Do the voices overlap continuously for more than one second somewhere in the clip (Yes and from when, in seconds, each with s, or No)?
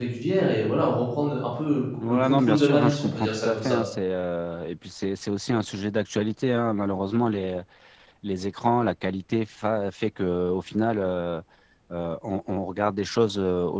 Yes, from 2.0 s